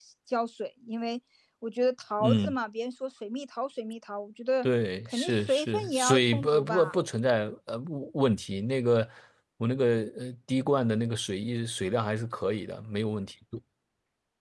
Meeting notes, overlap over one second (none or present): present